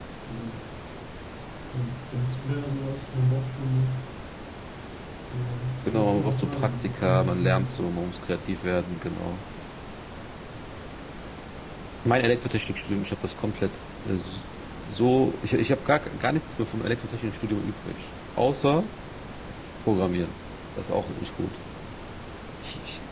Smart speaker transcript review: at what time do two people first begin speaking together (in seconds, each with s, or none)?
5.9 s